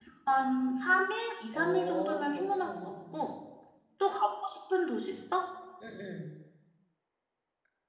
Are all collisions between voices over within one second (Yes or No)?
No